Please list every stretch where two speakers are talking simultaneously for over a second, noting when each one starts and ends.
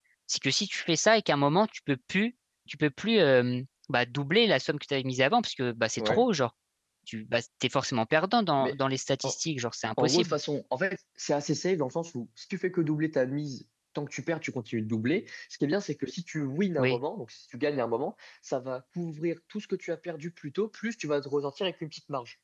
none

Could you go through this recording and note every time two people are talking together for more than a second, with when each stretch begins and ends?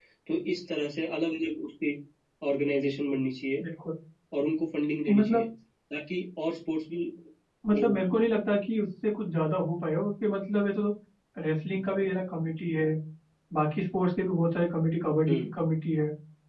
none

